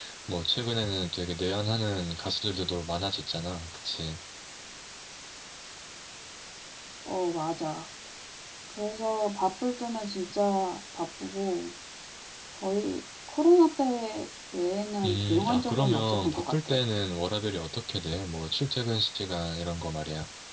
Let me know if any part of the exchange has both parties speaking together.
Yes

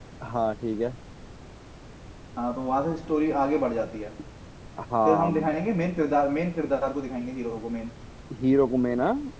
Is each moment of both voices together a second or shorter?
Yes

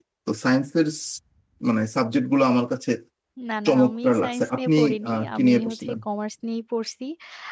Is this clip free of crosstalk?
No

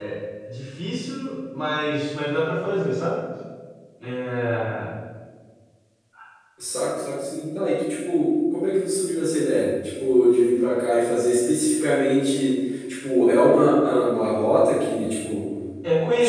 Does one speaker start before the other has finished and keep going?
No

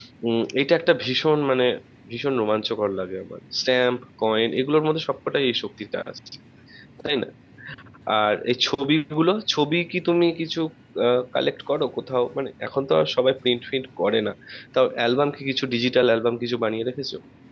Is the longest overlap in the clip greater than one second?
No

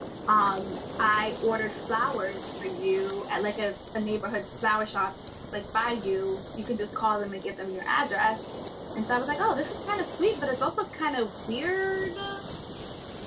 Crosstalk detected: No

